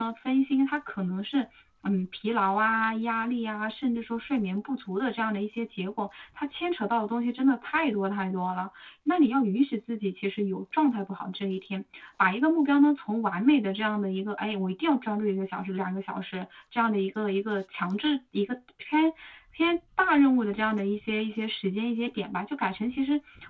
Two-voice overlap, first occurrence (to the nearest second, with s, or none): none